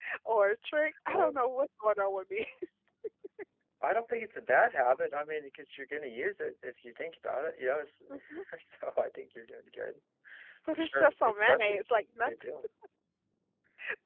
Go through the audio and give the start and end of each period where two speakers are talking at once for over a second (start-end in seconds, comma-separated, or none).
10.7-12.3